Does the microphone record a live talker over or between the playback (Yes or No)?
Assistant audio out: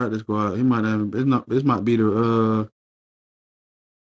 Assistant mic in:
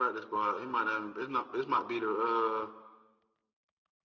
No